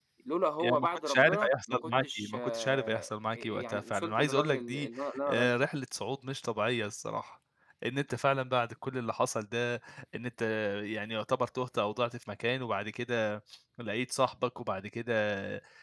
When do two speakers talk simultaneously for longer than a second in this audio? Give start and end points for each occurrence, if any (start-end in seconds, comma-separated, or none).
0.6-4.9